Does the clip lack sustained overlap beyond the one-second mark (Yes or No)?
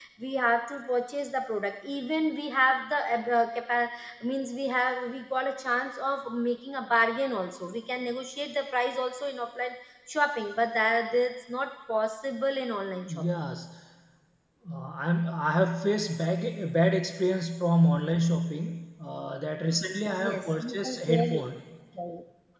No